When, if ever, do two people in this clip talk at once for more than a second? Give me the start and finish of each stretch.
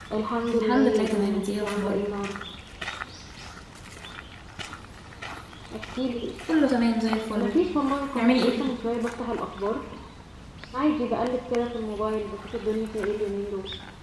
0.5-2.0

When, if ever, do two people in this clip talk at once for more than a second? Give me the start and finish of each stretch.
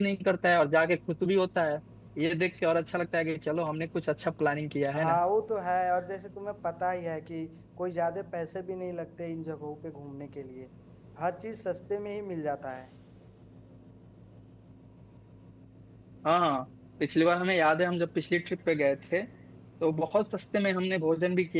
none

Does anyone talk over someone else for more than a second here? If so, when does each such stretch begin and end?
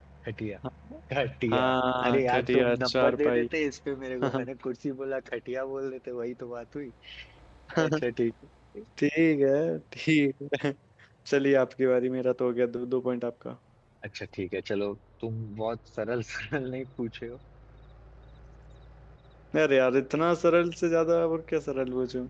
2.1-3.5

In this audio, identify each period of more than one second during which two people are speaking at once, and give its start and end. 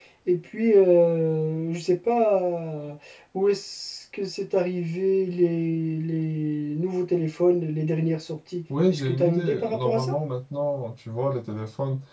8.9-10.2

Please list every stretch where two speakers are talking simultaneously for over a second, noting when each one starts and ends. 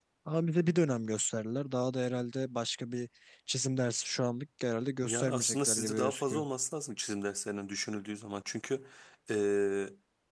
5.0-6.4

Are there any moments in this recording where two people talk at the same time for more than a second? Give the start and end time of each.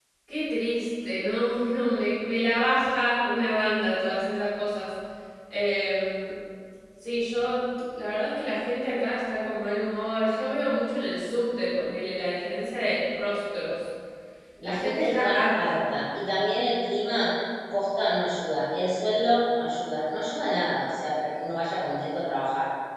14.6-15.8

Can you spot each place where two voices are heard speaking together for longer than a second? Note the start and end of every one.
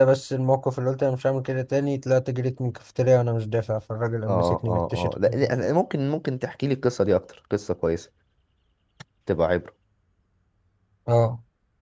4.3-5.5

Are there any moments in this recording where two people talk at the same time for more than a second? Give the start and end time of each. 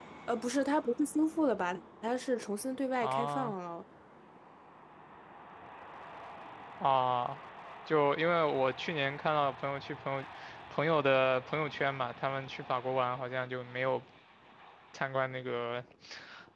none

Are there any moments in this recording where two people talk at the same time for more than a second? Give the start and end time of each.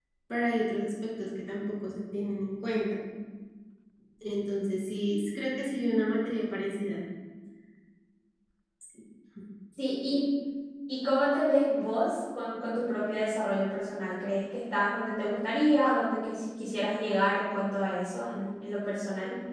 none

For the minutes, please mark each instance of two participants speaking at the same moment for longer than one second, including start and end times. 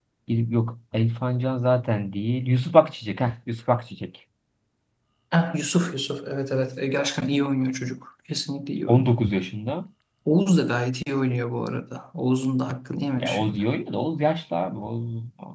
none

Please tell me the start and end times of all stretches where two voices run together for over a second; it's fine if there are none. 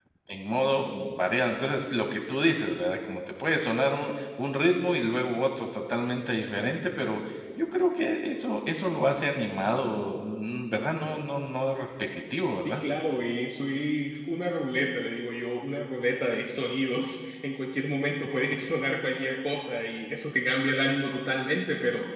none

